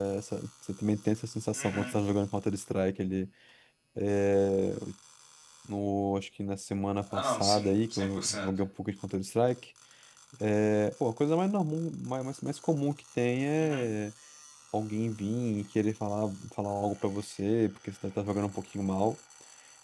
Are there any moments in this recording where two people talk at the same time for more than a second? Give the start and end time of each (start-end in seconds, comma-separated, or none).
7.1-8.5